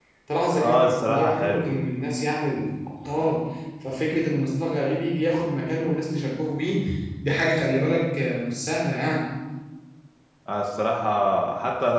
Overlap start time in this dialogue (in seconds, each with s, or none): 0.5 s